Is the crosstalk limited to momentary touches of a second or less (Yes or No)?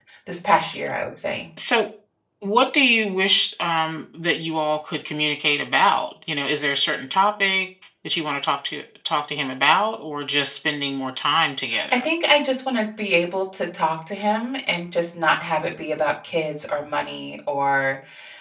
Yes